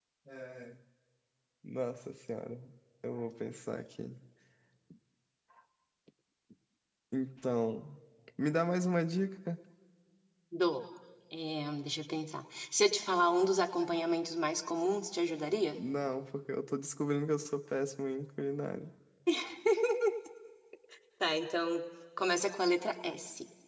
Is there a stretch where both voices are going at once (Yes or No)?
No